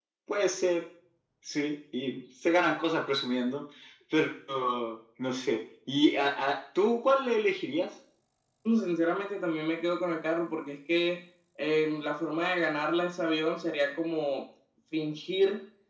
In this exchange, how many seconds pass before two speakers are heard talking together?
none

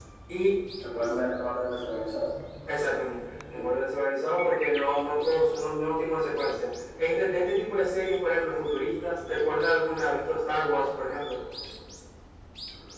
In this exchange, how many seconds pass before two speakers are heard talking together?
none

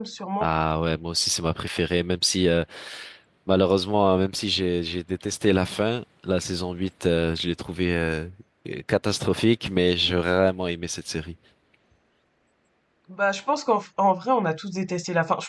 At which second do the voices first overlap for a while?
none

